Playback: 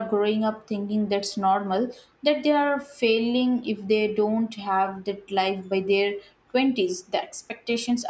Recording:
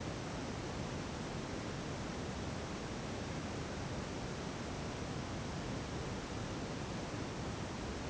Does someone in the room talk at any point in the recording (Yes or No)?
No